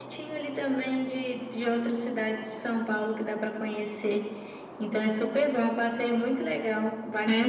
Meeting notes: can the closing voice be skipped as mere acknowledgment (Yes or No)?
No